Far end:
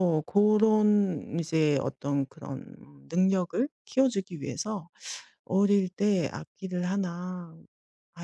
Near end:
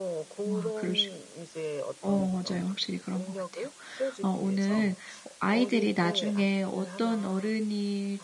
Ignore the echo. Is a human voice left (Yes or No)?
Yes